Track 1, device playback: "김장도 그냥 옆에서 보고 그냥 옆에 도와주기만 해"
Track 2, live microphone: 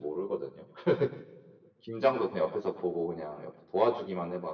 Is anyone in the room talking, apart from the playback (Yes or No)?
No